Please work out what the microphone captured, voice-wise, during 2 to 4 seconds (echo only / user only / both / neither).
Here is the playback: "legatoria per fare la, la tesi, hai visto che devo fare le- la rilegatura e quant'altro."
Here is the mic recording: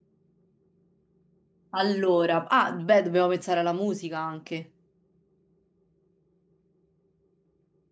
user only